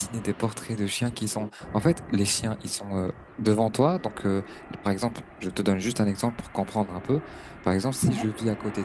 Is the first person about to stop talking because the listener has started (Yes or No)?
No